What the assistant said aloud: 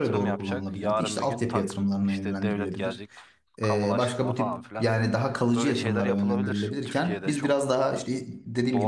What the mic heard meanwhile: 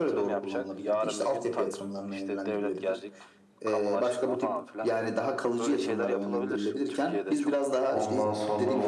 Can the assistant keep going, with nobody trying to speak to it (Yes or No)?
No